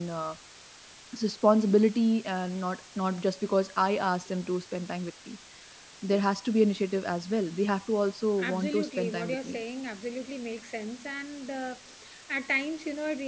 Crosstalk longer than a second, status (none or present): present